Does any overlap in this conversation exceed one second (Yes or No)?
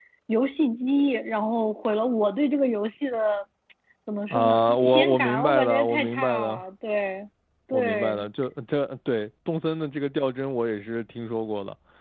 Yes